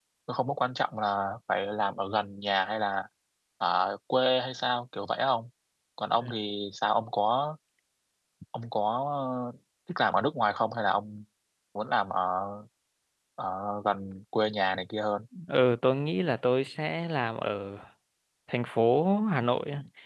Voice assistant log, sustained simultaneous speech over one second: none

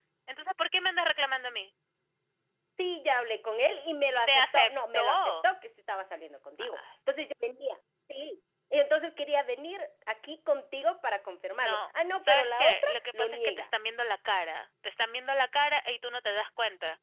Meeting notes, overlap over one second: present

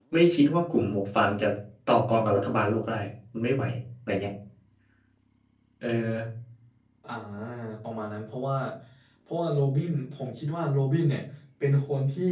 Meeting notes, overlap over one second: none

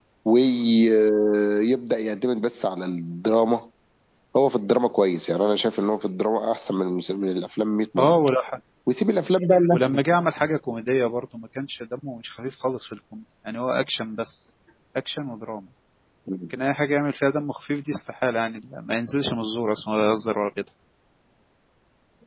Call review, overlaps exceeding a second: none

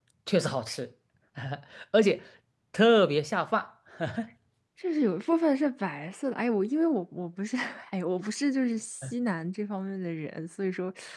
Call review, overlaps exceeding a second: none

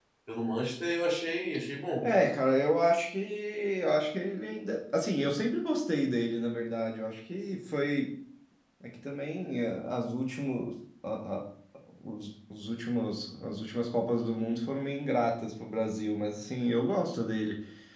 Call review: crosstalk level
none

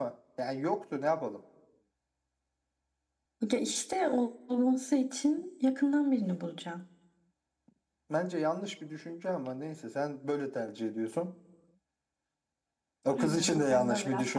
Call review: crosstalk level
present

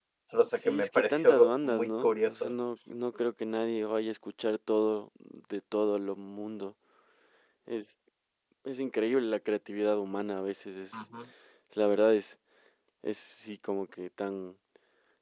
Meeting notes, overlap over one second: present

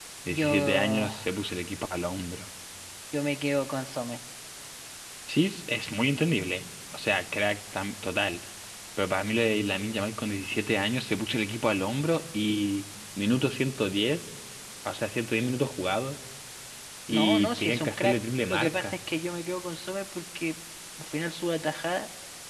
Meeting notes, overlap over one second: present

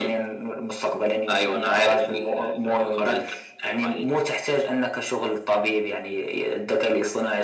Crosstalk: present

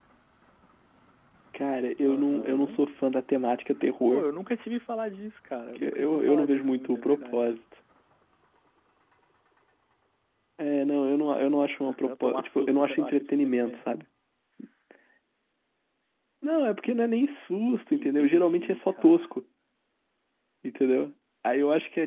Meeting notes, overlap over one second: present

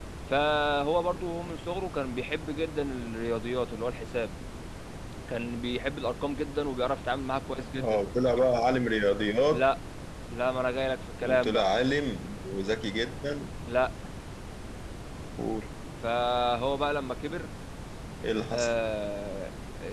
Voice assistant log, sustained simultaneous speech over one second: none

